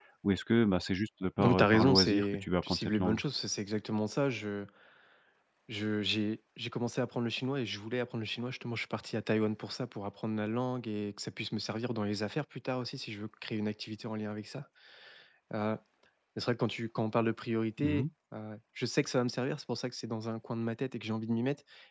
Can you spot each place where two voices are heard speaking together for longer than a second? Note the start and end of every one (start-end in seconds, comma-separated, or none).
1.4-3.2